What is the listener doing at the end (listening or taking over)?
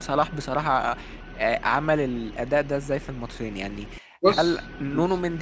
listening